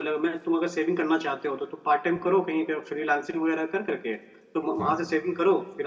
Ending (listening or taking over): listening